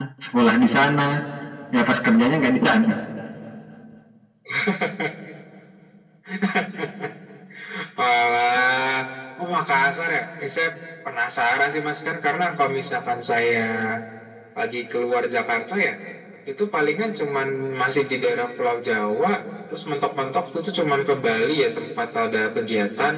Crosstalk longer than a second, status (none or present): none